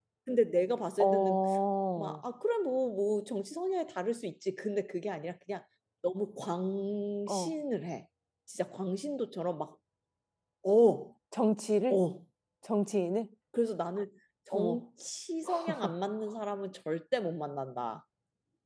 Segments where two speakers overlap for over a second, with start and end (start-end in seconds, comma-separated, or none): none